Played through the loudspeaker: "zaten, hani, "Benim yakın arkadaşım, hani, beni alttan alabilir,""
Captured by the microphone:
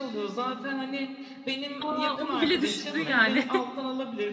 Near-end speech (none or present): present